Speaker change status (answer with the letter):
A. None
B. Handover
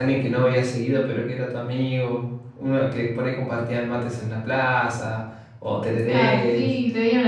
B